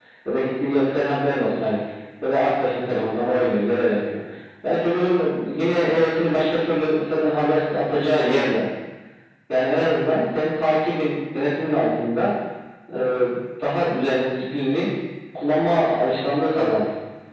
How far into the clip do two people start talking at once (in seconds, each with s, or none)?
none